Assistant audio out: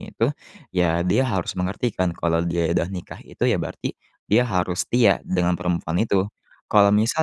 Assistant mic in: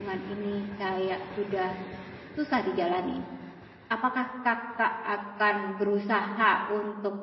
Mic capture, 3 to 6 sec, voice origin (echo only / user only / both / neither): user only